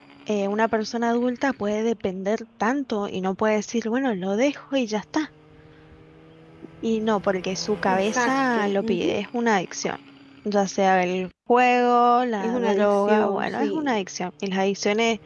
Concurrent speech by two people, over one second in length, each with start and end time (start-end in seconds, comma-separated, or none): 7.9-9.2, 12.4-14.0